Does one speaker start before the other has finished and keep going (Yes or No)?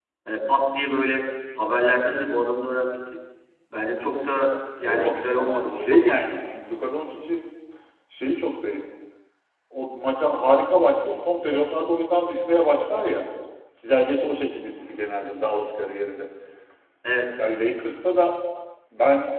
Yes